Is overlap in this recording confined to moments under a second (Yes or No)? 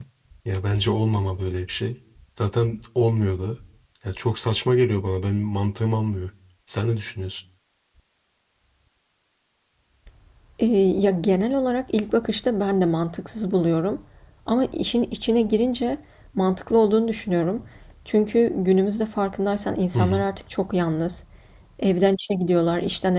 Yes